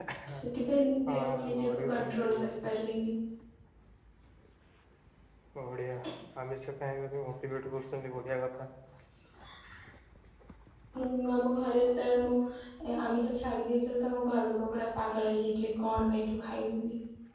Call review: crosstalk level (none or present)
present